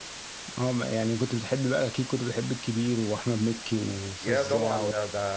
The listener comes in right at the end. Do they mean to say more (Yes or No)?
Yes